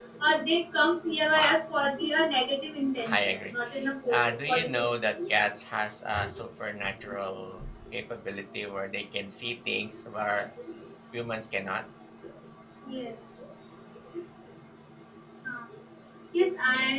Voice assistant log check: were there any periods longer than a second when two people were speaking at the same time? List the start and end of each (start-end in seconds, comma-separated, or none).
4.1-5.4